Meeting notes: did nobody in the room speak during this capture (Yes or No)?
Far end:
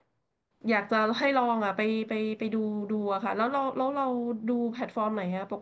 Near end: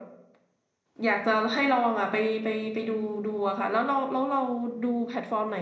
Yes